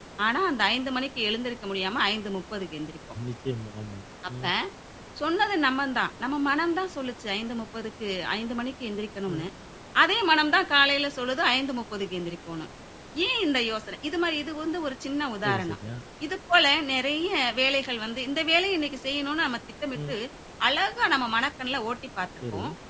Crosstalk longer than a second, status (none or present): none